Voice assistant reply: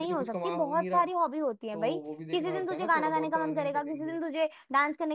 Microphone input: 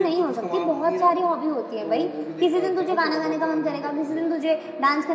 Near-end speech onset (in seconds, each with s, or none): none